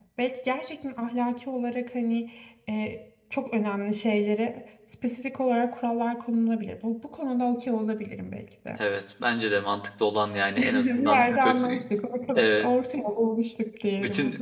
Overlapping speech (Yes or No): Yes